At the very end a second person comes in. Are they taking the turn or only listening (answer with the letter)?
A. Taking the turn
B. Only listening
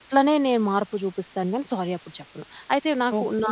A